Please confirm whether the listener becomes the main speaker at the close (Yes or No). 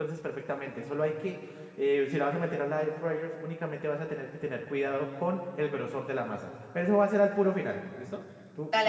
No